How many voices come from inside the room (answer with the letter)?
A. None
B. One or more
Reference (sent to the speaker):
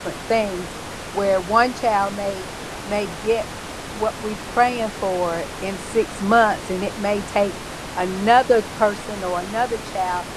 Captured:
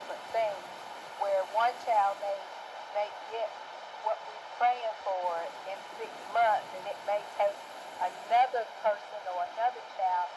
A